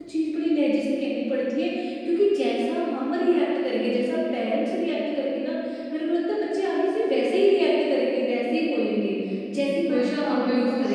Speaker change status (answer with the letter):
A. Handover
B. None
A